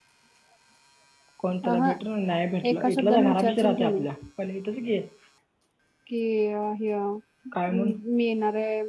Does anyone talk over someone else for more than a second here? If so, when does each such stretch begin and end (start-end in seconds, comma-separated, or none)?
2.7-4.0